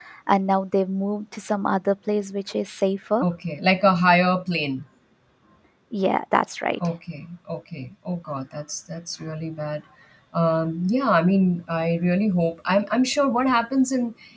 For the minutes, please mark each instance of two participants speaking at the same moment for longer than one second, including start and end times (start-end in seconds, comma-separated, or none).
none